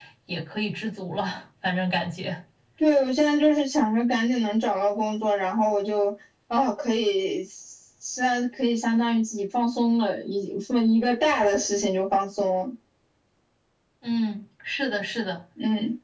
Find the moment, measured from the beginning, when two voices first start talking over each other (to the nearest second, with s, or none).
none